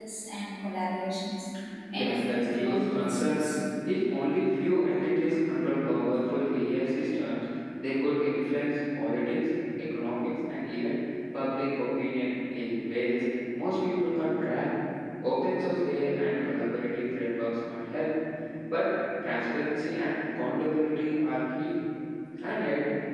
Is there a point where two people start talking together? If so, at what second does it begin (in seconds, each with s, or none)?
1.9 s